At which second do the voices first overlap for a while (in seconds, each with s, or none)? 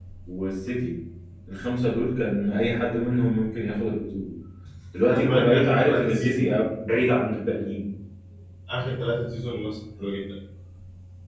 5.1 s